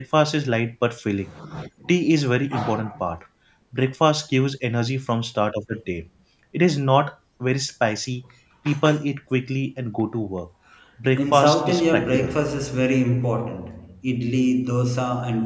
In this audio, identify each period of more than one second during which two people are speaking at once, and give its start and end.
11.2-12.4

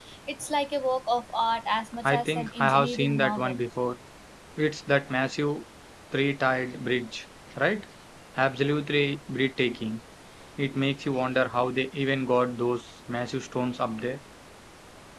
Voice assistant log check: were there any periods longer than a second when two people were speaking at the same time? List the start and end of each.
2.0-3.6

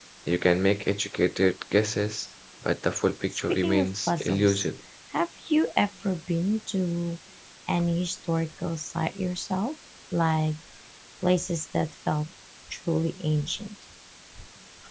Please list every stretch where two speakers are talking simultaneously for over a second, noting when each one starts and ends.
3.3-4.7

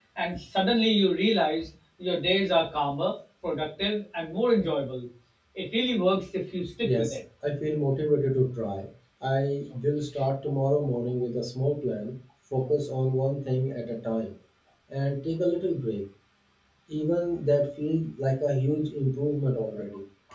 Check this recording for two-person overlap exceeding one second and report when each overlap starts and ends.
none

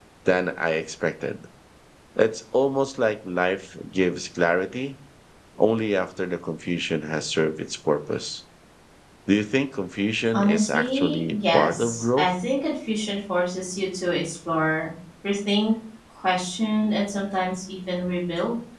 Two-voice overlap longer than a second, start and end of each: 10.3-12.3

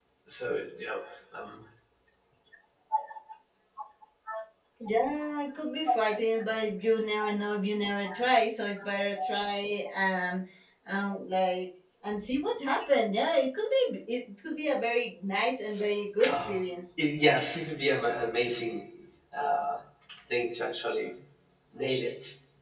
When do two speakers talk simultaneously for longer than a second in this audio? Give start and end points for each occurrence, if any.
none

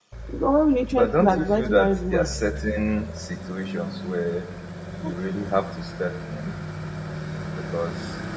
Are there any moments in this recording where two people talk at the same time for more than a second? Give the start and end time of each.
0.9-2.3

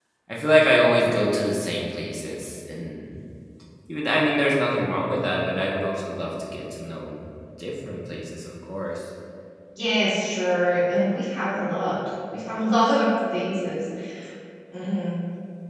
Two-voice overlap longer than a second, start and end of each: none

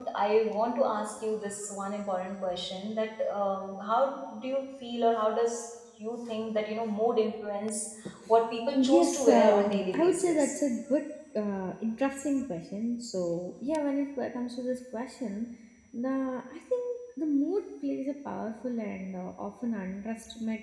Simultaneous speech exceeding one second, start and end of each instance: 8.7-10.5

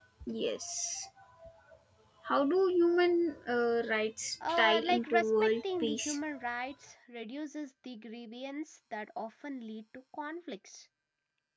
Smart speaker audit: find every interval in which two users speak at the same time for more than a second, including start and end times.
4.5-6.2

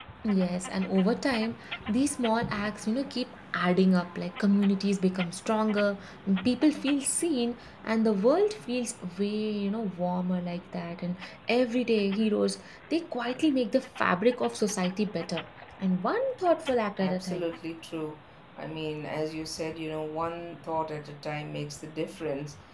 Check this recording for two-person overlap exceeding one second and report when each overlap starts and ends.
none

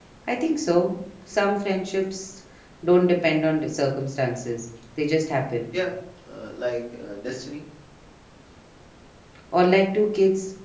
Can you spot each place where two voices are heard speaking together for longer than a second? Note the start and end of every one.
none

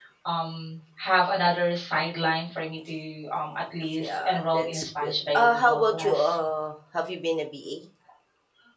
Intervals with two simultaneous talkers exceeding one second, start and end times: 4.0-6.2

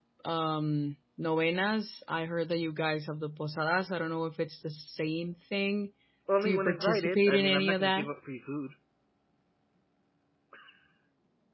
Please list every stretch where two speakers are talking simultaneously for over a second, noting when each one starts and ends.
6.4-8.1

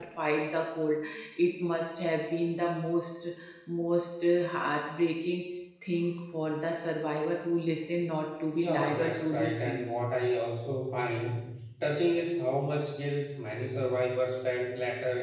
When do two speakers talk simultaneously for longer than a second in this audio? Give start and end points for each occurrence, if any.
8.5-10.0

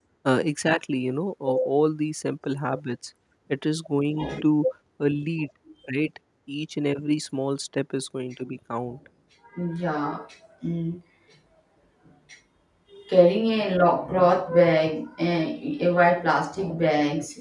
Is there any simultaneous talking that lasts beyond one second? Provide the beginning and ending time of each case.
none

